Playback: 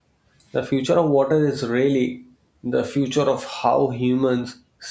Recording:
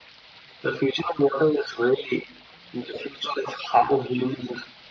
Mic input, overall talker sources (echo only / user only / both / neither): echo only